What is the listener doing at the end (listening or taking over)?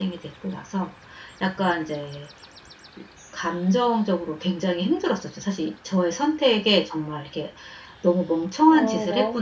taking over